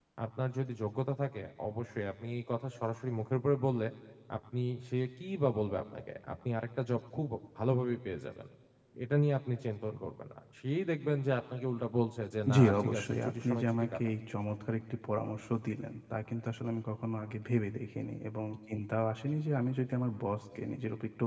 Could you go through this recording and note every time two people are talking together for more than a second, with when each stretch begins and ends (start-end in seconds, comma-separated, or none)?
12.5-14.0